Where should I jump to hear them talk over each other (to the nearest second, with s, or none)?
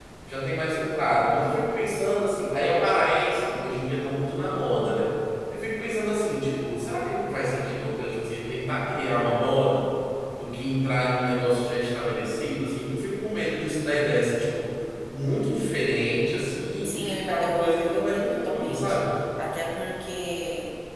17 s